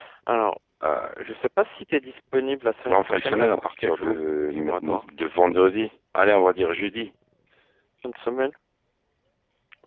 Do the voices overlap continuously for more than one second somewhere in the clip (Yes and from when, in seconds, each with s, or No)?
Yes, from 2.8 s